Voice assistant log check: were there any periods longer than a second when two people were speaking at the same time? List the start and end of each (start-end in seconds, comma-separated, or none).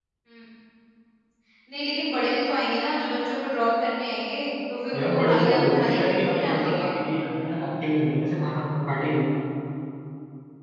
4.9-6.9